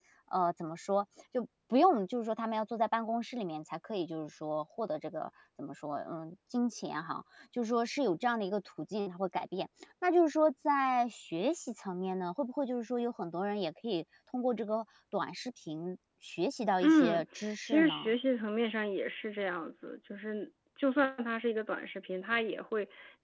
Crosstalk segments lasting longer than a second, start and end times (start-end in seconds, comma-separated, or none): 16.8-18.1